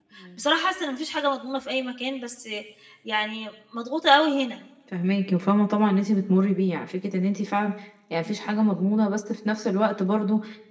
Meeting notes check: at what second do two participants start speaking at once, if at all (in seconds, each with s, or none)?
none